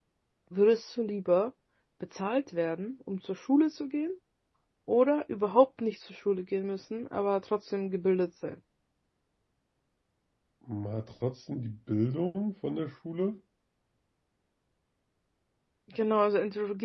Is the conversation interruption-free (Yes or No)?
Yes